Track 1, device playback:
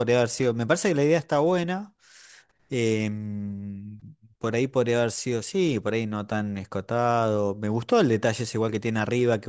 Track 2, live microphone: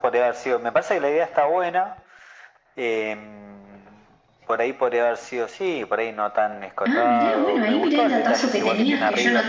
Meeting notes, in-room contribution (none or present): present